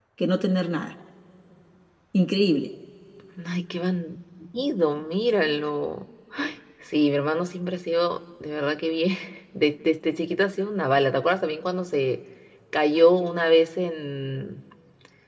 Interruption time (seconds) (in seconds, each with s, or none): none